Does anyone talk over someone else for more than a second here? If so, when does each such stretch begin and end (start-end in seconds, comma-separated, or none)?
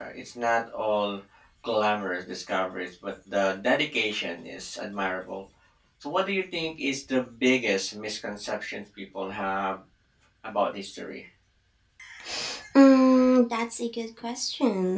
none